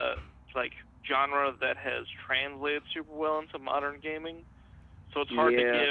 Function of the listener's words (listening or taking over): listening